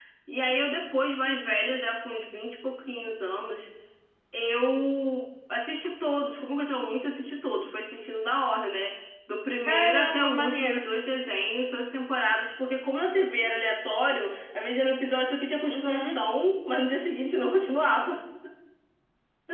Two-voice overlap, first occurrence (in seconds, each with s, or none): 9.6 s